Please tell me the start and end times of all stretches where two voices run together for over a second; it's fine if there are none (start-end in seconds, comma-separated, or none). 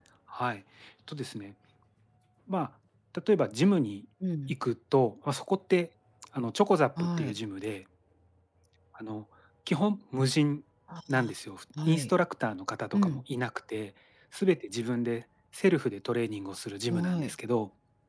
none